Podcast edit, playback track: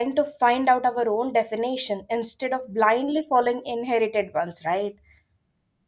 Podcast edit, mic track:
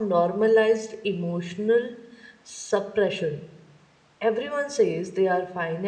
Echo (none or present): none